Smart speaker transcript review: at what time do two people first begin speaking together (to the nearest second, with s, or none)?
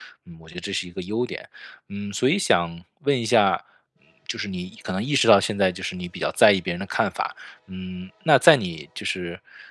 none